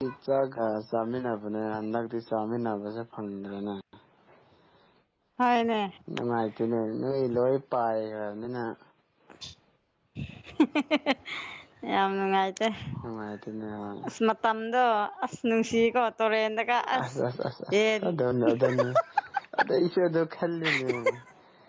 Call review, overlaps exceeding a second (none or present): none